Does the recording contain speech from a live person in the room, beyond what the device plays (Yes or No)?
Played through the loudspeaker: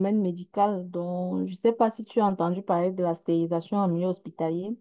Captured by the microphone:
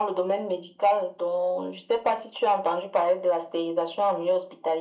No